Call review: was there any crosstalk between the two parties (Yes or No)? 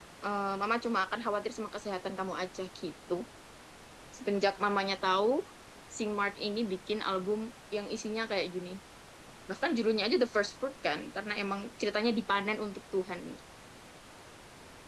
No